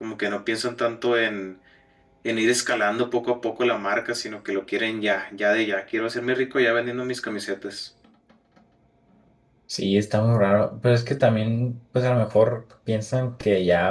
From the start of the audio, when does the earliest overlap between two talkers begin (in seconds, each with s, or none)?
none